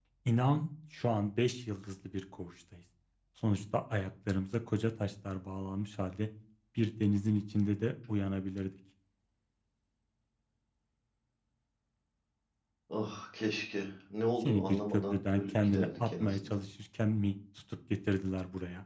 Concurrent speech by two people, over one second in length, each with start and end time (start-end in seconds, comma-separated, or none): 14.4-16.6